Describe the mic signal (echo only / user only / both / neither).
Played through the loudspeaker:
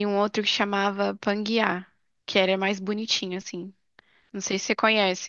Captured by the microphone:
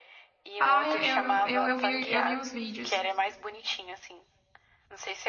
both